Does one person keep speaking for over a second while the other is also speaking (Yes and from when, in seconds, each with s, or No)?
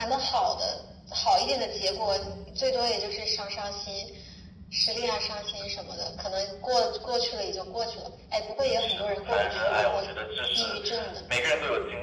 Yes, from 8.8 s